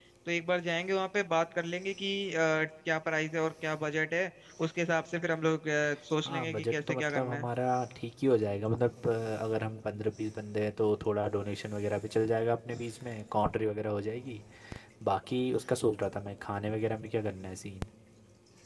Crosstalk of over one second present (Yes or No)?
Yes